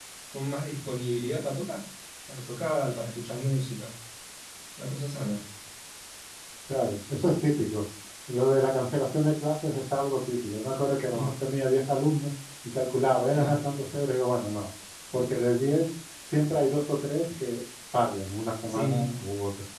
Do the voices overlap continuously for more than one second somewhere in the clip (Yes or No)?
No